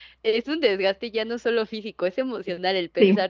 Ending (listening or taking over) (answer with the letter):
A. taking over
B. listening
B